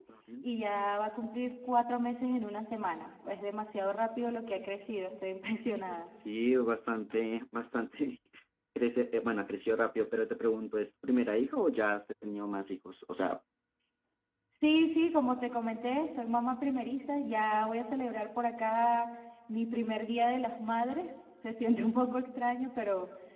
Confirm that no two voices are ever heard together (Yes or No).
Yes